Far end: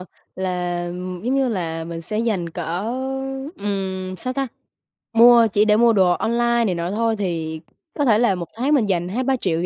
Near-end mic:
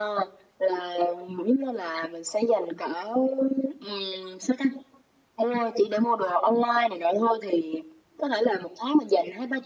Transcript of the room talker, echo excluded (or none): none